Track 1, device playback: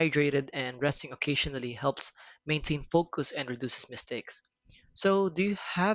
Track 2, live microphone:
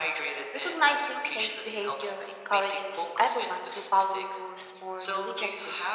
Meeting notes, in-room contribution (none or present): present